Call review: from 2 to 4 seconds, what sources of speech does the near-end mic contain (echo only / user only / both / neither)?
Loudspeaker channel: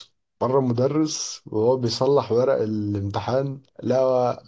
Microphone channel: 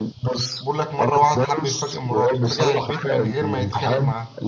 both